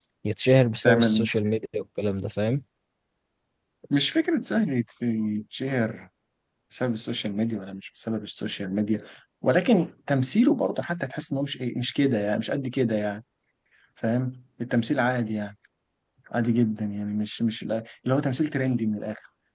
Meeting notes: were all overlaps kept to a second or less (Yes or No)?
Yes